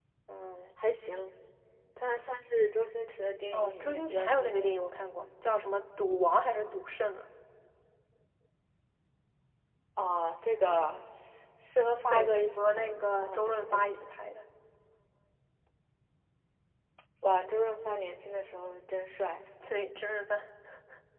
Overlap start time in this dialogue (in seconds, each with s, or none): 3.5 s